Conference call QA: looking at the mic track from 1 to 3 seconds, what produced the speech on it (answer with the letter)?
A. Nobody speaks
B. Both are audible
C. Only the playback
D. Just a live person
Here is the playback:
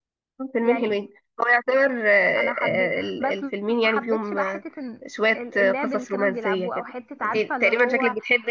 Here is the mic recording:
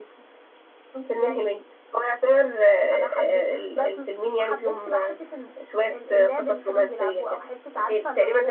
C